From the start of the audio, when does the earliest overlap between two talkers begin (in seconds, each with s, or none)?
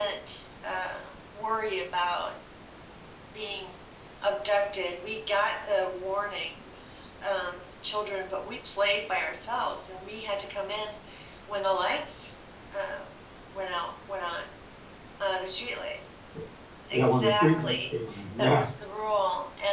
16.9 s